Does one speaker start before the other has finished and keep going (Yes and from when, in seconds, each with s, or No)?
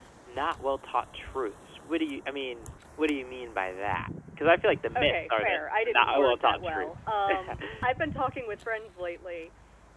Yes, from 5.0 s